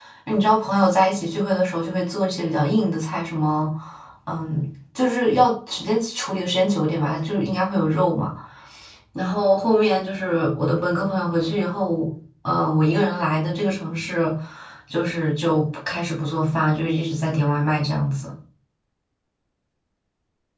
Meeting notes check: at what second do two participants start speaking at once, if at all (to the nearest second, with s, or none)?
none